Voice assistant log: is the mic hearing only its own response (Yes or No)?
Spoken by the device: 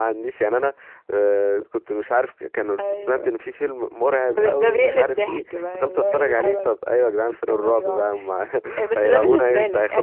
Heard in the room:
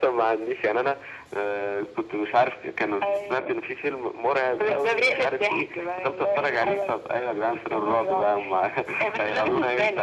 Yes